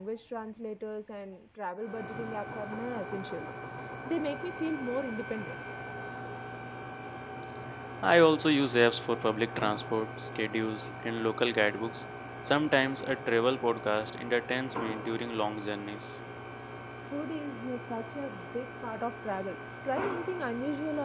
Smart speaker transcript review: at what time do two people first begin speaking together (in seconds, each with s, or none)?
none